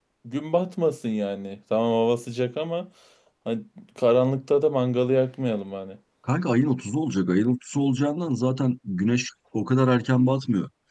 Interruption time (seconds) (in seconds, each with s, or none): none